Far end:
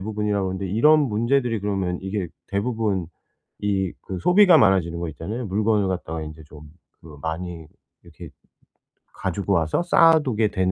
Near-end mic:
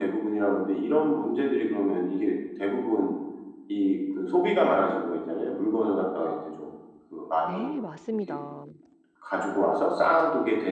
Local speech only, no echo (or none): 네, 맞습니다.